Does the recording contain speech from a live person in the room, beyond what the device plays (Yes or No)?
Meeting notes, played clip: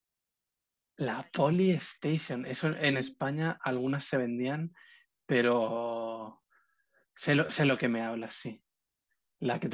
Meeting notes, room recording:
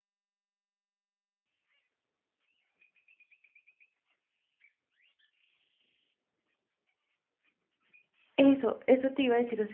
Yes